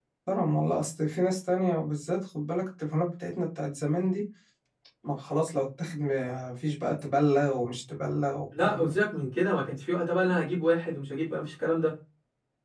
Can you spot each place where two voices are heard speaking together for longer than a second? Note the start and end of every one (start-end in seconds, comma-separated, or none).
none